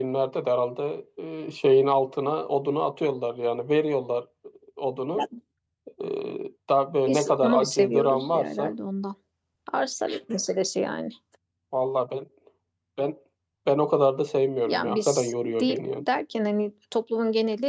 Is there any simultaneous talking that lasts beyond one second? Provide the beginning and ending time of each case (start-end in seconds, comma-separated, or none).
7.1-8.7, 14.6-16.0